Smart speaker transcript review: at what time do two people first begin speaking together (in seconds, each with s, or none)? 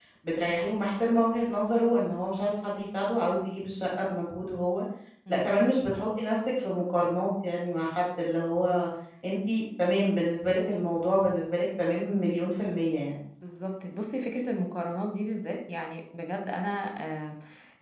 none